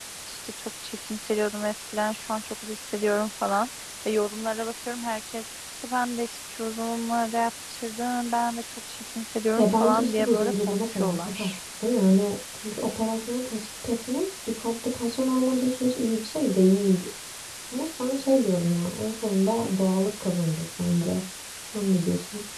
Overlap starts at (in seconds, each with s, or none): 9.6 s